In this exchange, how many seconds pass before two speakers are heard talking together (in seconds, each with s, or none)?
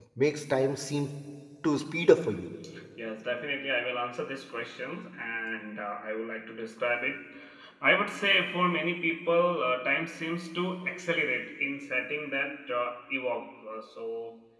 none